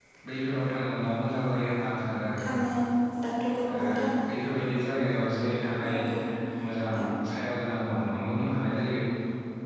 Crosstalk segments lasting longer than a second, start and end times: none

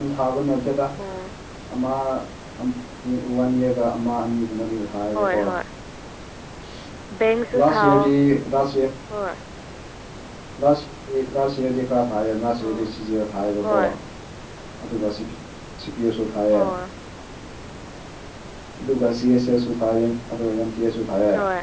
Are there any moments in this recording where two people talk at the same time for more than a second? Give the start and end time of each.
none

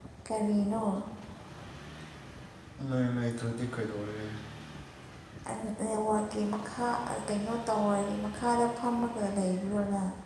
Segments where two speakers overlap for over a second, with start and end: none

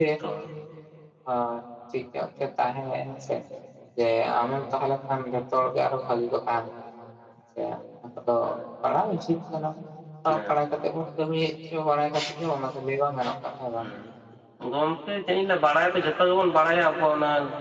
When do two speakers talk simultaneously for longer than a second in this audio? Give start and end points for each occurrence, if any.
none

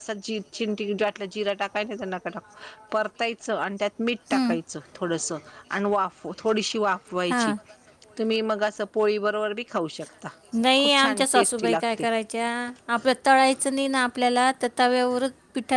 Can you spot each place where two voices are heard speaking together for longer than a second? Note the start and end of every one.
10.8-12.1

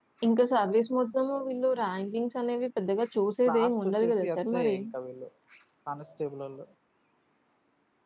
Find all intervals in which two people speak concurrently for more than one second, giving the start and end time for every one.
3.5-4.8

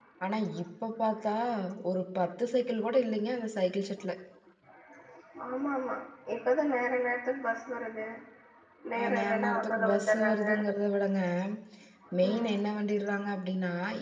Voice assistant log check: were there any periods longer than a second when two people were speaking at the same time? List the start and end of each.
9.0-10.4

